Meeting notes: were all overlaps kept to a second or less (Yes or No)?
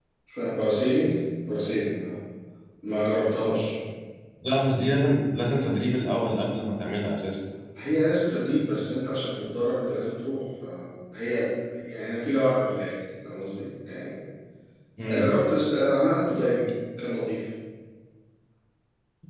Yes